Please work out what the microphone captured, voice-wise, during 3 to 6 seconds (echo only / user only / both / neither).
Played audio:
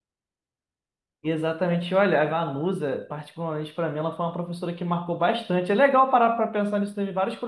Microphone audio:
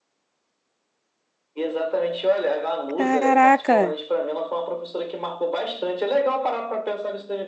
both